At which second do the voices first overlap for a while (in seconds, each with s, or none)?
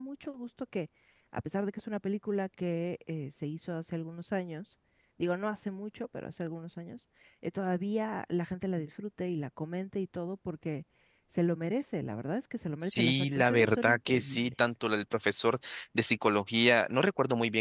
12.8 s